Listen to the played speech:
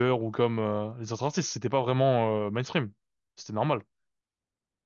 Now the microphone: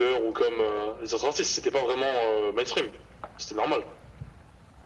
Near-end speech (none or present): none